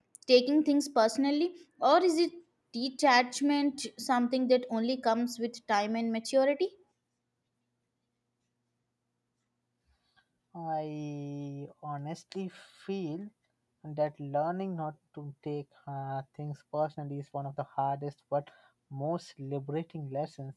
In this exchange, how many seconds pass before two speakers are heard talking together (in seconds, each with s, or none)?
none